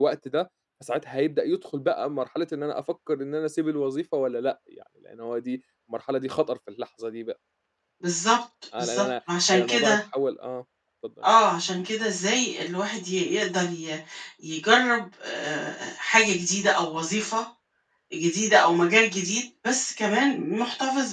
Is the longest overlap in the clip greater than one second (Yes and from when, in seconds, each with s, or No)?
No